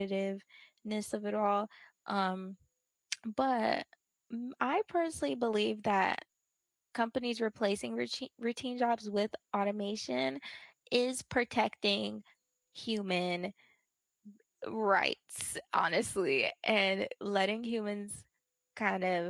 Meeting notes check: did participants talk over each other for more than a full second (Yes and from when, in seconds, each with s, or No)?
No